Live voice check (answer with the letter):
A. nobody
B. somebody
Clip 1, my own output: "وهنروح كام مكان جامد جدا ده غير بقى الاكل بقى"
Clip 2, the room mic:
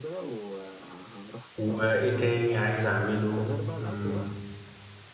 B